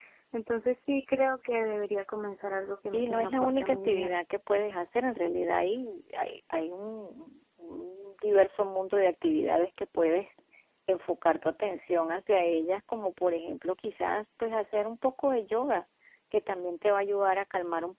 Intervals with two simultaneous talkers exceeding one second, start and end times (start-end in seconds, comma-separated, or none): 2.9-4.2